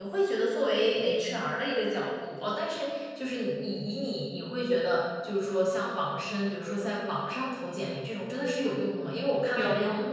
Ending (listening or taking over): listening